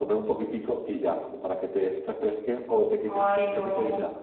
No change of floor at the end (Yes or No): Yes